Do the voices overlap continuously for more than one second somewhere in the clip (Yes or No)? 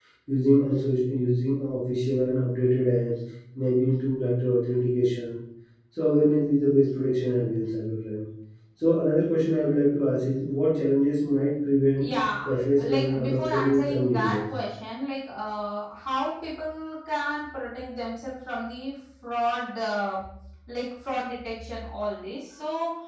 Yes